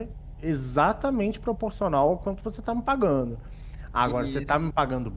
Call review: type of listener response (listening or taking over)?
listening